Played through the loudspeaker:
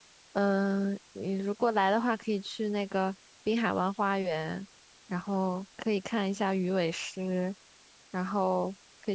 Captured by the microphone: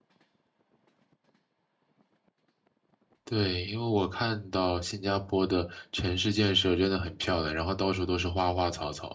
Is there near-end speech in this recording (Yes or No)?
Yes